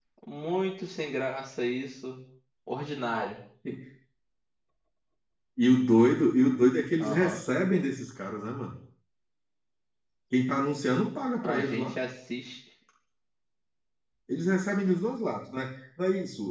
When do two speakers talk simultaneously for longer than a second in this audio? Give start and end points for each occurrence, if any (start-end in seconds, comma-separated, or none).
none